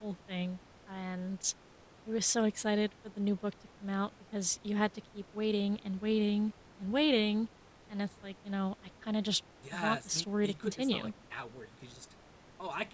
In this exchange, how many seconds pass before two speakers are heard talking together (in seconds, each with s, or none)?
9.6 s